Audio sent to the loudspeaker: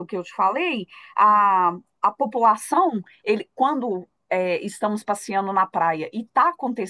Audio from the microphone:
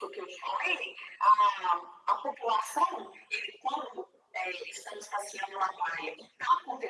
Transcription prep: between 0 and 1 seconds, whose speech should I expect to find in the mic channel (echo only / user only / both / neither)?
echo only